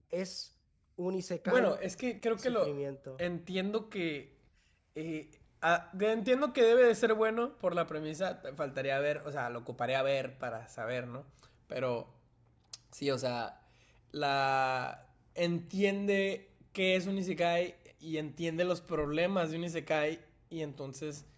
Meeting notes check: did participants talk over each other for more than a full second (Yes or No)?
No